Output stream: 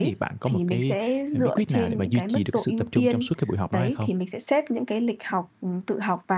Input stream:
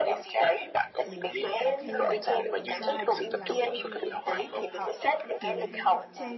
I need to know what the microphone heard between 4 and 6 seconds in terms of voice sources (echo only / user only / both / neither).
both